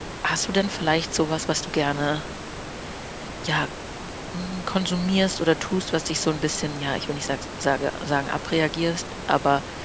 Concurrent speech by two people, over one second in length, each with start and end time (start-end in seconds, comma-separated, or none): none